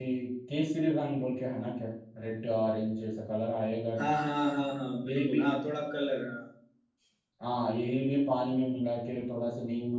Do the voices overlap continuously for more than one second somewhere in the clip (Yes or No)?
No